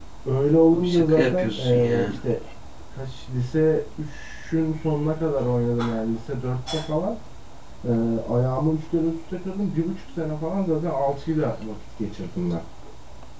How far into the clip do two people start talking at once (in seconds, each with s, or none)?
0.7 s